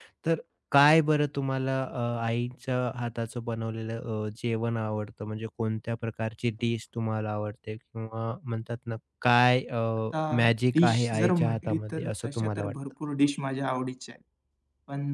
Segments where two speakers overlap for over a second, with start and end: 10.8-12.8

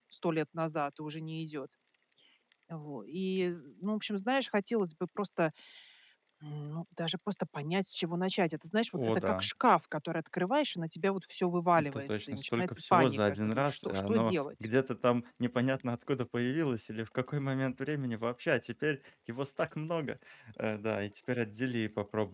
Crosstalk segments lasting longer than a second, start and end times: 11.8-14.7

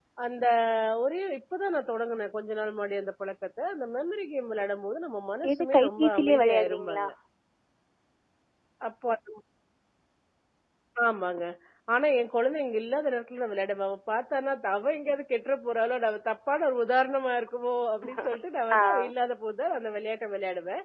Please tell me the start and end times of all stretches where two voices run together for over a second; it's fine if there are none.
5.6-7.1

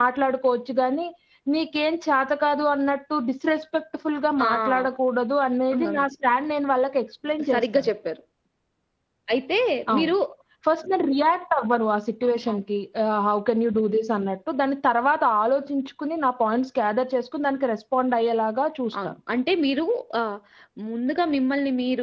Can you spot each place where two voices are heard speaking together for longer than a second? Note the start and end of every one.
none

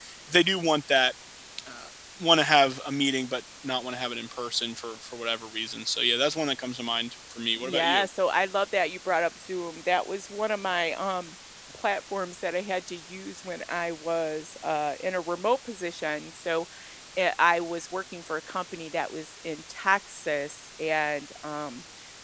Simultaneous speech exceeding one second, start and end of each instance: none

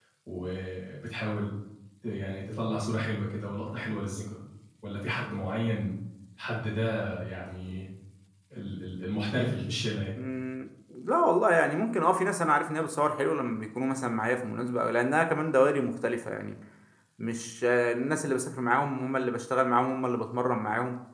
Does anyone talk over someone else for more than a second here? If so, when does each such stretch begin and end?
none

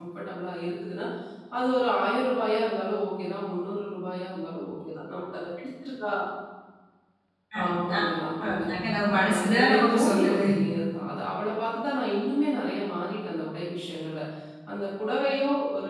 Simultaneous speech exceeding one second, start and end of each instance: 9.2-10.4

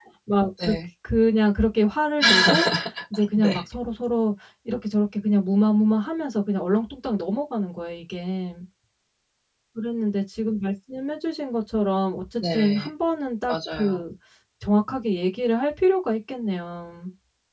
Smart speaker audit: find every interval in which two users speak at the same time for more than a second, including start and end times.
none

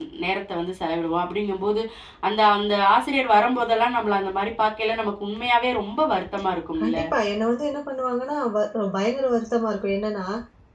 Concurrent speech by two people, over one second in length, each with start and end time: none

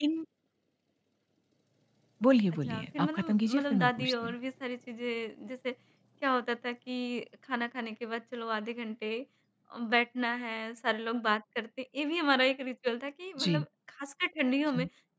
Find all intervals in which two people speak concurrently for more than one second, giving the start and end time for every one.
2.7-4.3

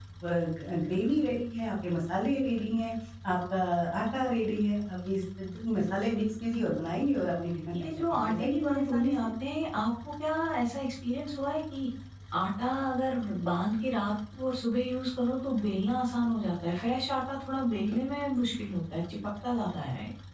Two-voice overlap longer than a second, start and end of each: 7.7-9.1

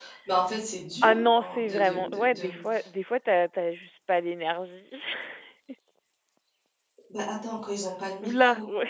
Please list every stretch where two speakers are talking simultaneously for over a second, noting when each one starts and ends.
1.0-2.6

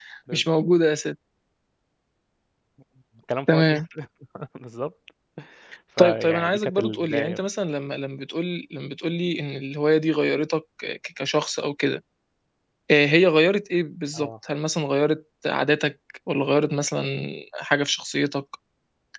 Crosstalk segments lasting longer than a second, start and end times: 6.0-7.5

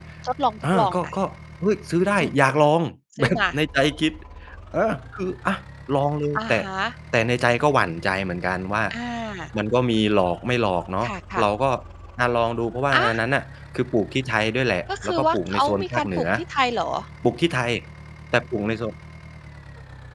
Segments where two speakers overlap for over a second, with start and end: 15.0-16.2

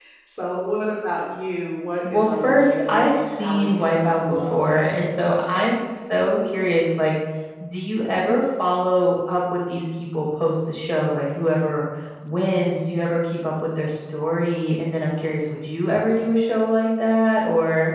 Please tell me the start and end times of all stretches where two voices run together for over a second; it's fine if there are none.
2.1-4.7

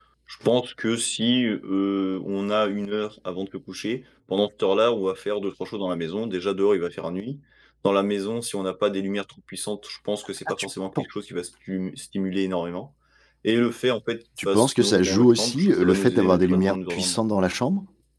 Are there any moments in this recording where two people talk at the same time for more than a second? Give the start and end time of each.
14.4-17.2

